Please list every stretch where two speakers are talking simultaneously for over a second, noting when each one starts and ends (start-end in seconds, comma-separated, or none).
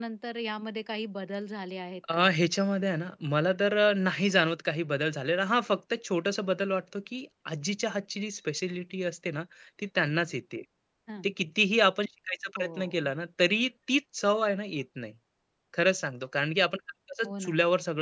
none